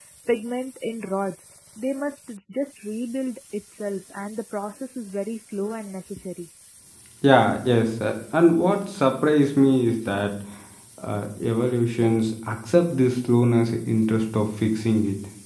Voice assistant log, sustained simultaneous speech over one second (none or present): none